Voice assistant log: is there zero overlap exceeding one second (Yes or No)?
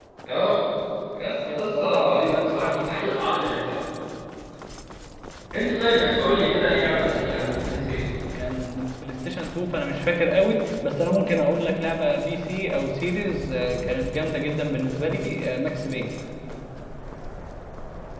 No